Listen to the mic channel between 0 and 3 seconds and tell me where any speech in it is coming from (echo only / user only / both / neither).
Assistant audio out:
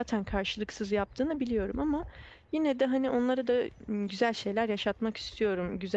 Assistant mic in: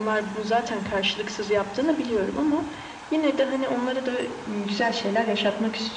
echo only